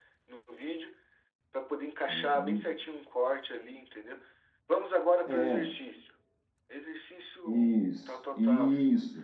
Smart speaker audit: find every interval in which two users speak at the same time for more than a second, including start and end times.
7.5-8.7

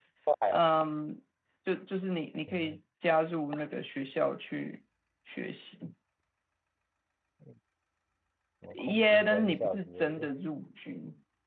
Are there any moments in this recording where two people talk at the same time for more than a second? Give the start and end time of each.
8.7-10.3

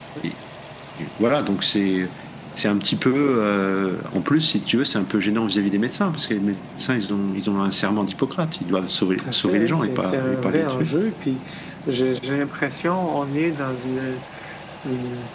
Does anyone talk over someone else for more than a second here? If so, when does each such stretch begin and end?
9.2-10.9

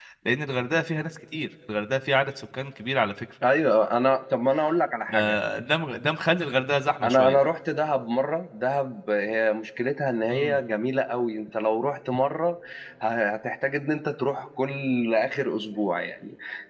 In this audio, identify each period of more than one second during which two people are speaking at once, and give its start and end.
none

